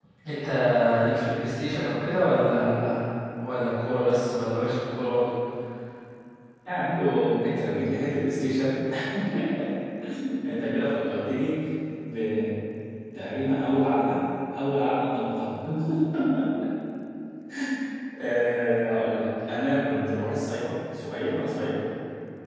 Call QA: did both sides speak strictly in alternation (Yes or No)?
Yes